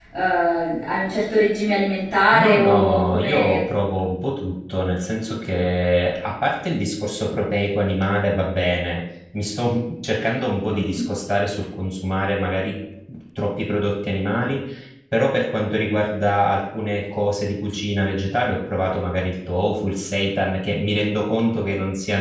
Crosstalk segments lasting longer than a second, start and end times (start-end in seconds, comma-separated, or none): 2.3-3.6